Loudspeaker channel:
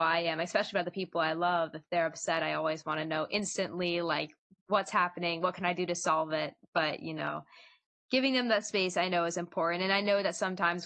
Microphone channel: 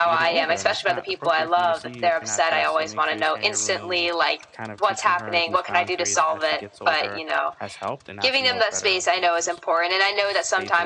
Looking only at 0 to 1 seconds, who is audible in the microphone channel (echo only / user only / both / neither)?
both